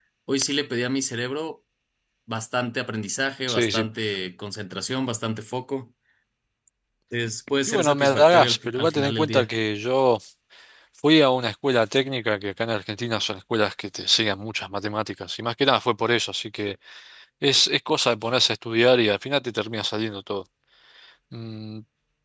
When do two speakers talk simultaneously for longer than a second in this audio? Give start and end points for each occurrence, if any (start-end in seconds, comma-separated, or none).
7.7-9.5